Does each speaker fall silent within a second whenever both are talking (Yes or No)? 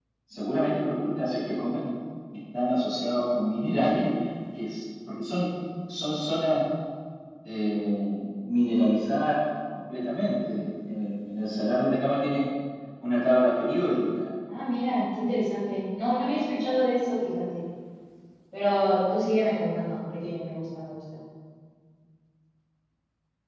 Yes